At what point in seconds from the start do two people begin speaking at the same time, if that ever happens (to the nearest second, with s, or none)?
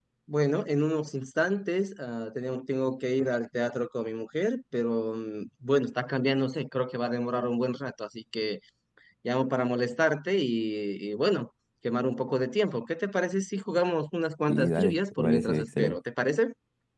14 s